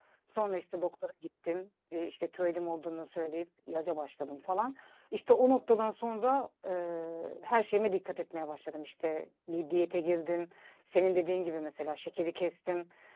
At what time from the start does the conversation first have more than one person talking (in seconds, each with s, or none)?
none